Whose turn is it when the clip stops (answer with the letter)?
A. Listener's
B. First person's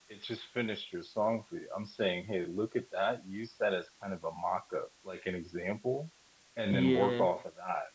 B